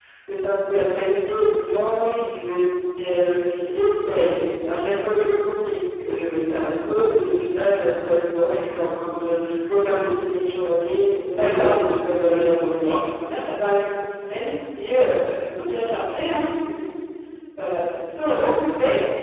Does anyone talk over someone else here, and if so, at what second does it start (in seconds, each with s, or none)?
11.4 s